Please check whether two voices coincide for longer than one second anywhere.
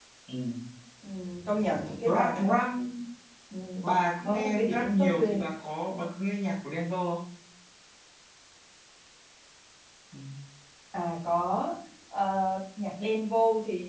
Yes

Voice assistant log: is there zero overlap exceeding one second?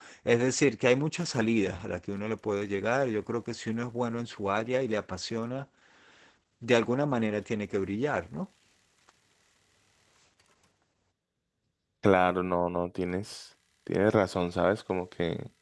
Yes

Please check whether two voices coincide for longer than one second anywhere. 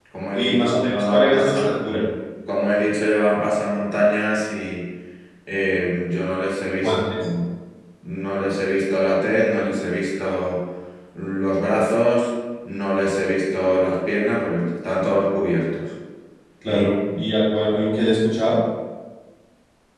Yes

